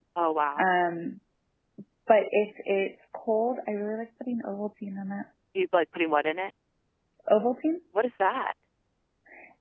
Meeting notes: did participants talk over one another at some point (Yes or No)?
No